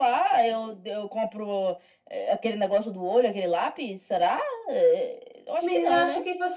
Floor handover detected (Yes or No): Yes